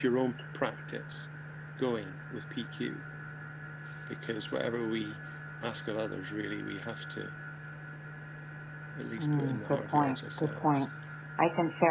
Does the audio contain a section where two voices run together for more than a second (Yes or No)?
Yes